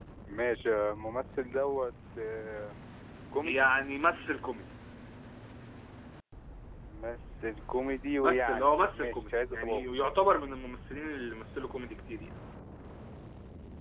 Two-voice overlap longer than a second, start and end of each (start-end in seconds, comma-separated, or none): 8.2-9.8